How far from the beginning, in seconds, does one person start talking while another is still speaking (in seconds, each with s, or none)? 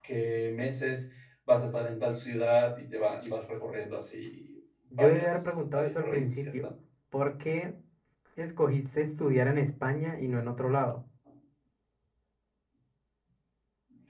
4.9 s